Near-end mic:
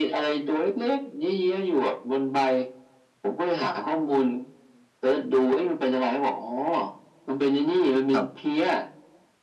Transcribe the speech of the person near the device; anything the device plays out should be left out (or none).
ครับ